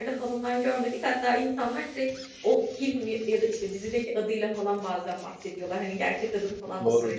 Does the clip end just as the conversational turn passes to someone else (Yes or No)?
Yes